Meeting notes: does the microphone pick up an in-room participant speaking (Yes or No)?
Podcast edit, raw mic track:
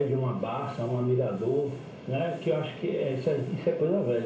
No